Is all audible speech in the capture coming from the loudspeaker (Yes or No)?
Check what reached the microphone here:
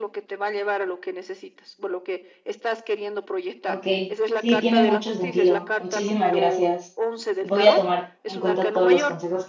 No